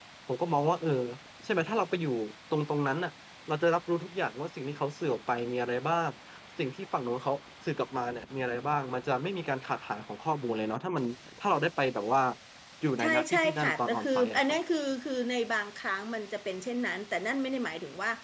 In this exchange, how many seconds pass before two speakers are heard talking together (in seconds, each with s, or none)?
13.0 s